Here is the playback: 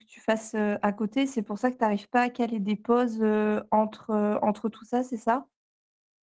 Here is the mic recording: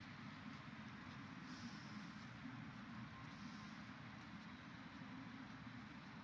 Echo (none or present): none